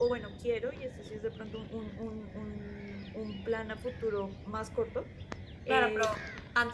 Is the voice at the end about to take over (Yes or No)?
Yes